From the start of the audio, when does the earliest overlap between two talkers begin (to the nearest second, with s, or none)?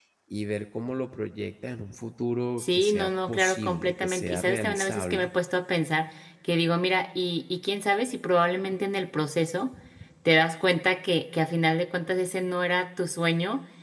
3 s